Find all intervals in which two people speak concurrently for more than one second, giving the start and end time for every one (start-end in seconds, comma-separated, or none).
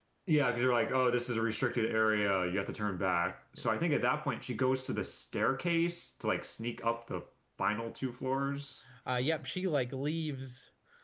none